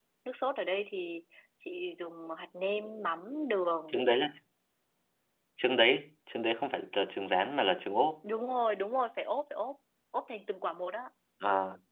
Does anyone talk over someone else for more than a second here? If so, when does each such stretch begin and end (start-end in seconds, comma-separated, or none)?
none